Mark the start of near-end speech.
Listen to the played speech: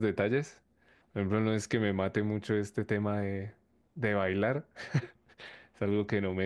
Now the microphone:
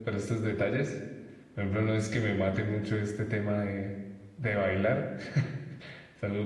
none

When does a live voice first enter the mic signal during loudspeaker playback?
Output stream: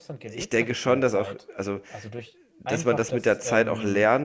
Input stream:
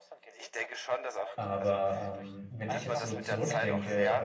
1.4 s

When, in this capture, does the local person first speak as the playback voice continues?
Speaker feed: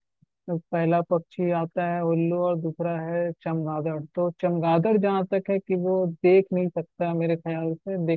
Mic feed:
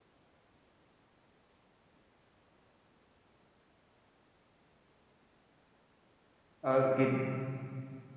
6.7 s

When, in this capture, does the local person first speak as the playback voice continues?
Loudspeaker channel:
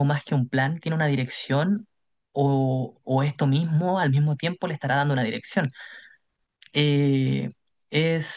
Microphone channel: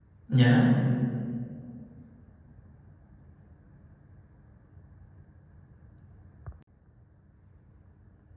0.3 s

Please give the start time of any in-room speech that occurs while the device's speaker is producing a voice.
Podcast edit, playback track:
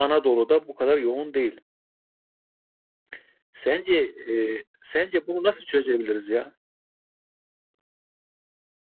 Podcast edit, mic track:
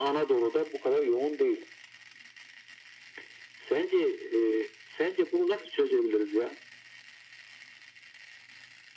none

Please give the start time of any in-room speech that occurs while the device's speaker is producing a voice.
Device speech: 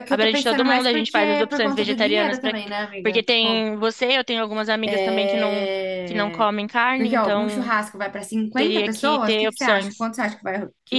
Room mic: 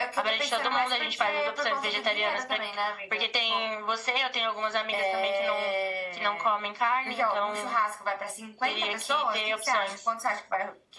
none

